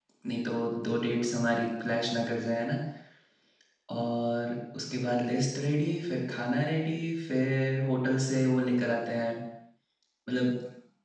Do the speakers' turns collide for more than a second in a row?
No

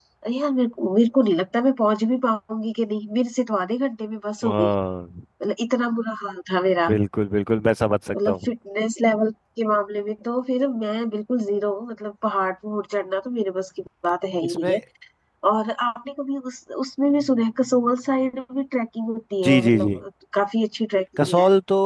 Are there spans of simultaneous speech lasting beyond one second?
No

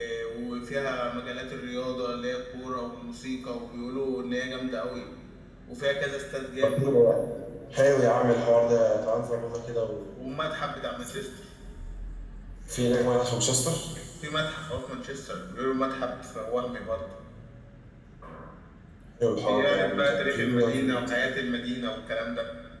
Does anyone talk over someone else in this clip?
Yes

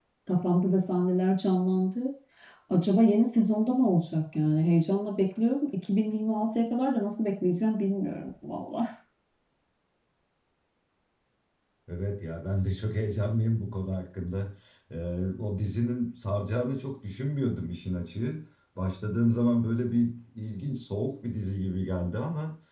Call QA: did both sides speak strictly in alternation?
Yes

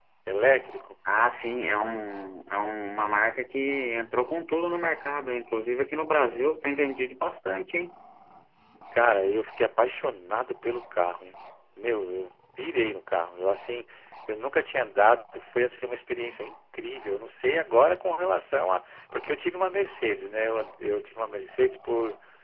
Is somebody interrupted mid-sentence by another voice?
No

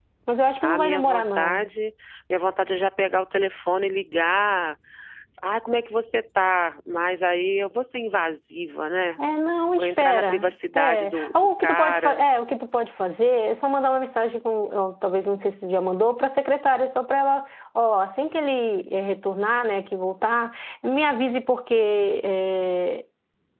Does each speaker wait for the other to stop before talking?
No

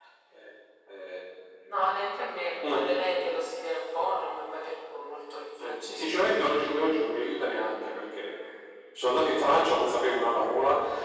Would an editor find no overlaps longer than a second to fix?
No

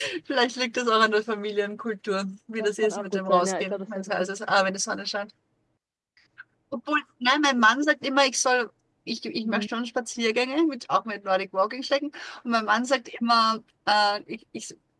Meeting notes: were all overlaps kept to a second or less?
No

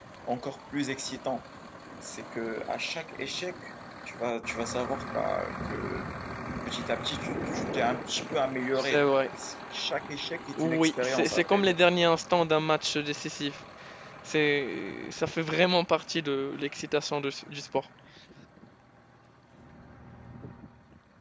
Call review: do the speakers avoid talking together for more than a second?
No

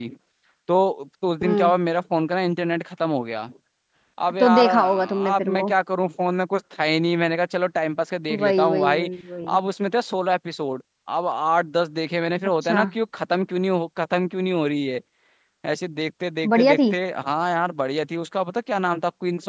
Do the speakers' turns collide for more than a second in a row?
Yes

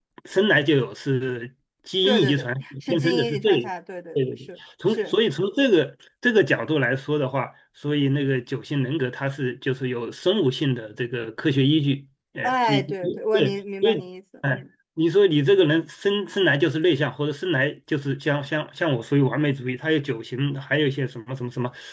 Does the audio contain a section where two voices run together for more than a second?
Yes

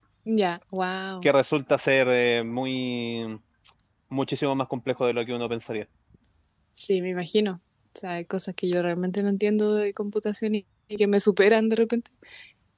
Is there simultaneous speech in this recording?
No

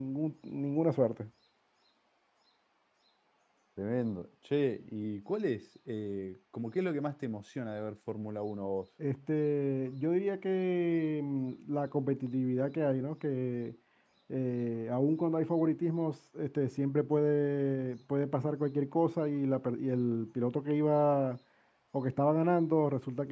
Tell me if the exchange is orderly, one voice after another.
Yes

